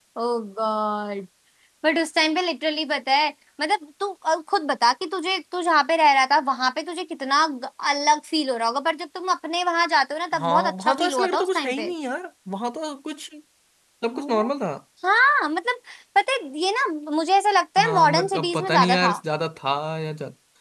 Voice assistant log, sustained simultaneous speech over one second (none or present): present